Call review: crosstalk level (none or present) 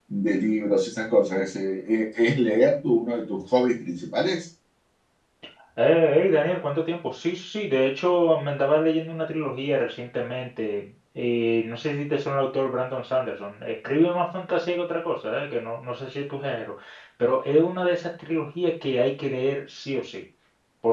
none